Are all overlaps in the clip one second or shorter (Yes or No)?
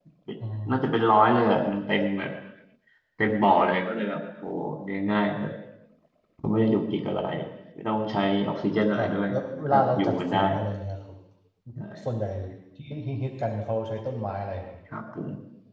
No